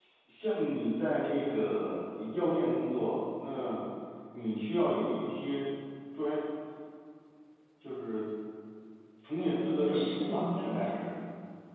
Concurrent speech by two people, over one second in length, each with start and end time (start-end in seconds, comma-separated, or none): 9.4-11.0